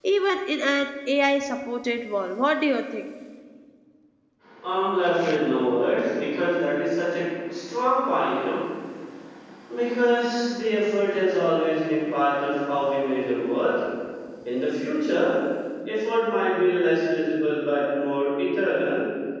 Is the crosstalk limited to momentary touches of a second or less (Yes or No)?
Yes